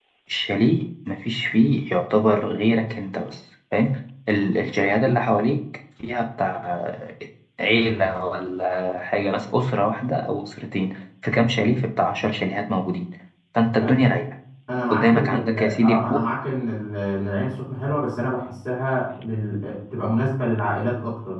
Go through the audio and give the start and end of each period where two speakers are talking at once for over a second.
14.9-16.2

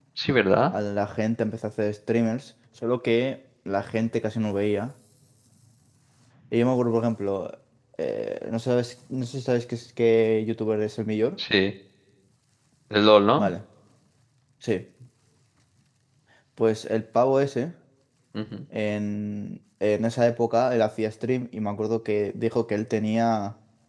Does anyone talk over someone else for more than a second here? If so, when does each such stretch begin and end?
none

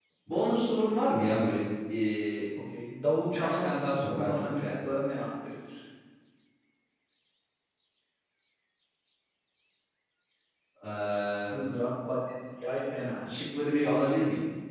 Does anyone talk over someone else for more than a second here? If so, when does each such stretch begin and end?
3.3-4.9

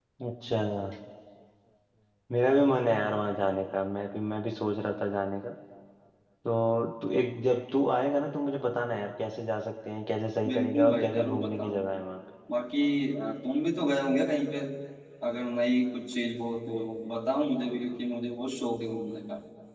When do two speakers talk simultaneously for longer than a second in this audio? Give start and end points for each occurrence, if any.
10.5-11.9

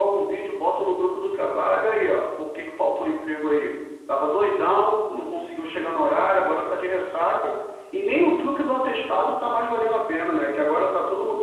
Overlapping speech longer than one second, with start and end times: none

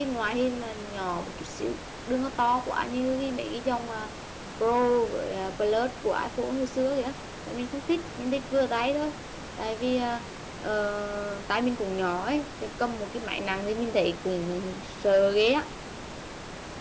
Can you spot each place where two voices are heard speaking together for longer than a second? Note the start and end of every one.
none

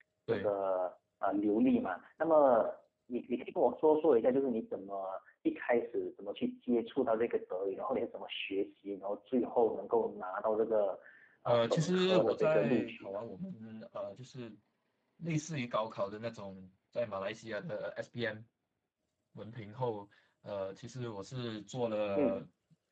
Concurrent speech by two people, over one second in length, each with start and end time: 11.5-13.2

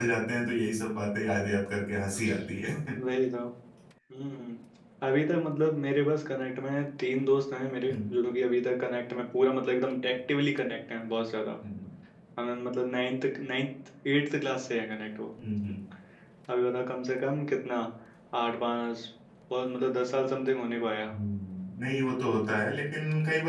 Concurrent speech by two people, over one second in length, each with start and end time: none

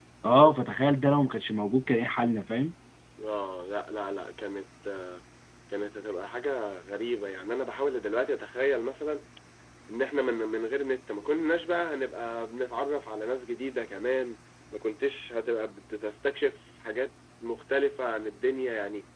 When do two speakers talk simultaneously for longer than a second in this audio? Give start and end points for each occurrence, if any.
none

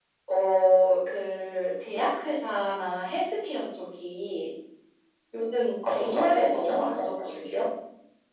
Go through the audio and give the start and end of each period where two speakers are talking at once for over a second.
5.8-7.7

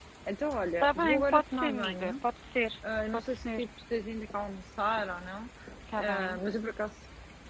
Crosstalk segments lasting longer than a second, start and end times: 0.8-2.1

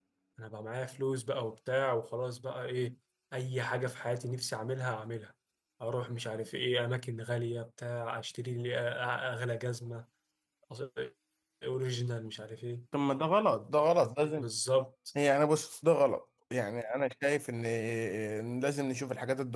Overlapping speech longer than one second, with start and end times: none

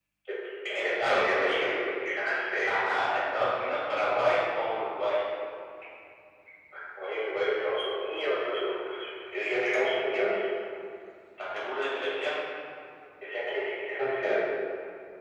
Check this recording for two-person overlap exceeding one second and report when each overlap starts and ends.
0.7-2.0

